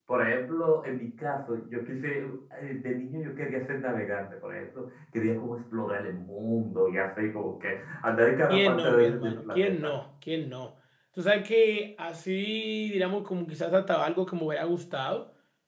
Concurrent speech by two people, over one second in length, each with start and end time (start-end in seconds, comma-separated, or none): 8.5-9.9